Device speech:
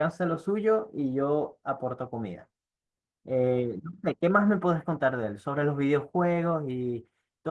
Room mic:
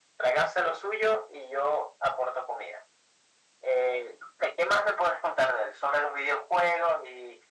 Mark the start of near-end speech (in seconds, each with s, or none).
none